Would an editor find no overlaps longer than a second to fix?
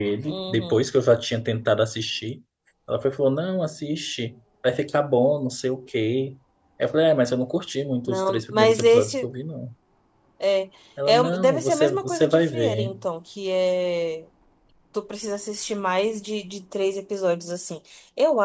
No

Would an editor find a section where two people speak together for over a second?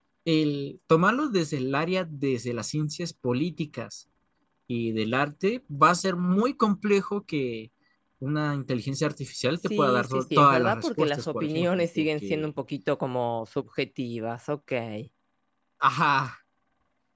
Yes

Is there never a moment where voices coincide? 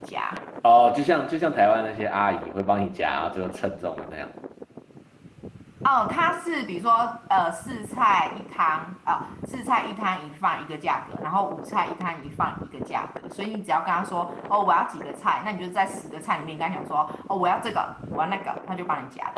Yes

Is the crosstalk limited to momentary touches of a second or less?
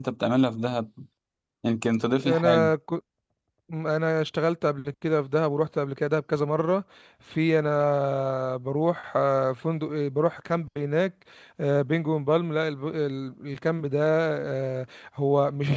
Yes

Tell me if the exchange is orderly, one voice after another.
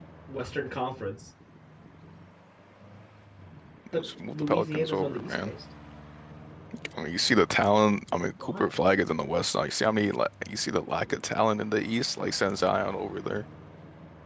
No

